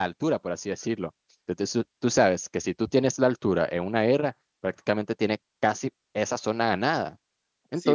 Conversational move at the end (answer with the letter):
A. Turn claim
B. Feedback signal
A